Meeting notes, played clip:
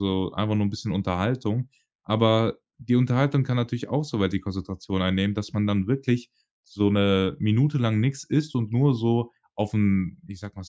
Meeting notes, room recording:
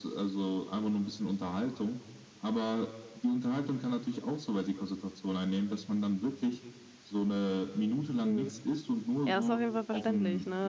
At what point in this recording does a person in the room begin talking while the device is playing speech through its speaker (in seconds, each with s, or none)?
8.2 s